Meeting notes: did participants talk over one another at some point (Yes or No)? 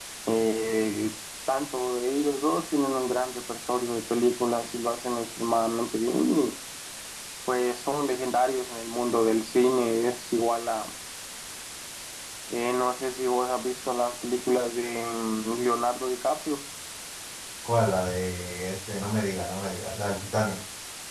No